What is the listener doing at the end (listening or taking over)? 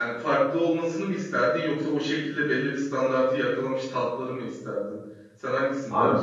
taking over